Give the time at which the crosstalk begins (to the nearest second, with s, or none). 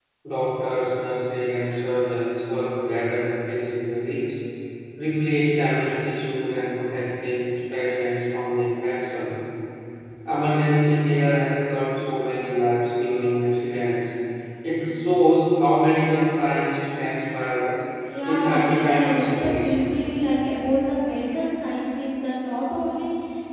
18 s